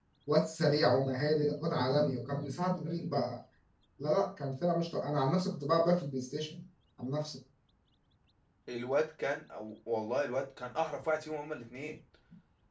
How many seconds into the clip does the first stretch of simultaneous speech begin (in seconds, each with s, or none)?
none